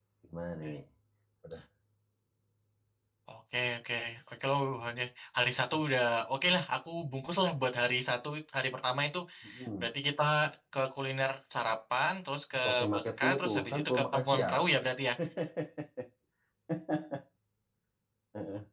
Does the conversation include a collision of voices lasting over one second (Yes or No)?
Yes